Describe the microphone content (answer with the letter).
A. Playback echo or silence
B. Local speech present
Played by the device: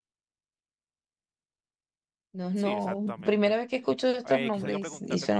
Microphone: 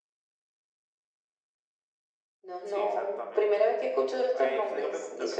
A